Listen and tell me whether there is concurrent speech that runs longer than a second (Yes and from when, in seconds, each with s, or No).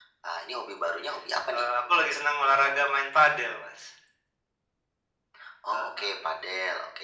No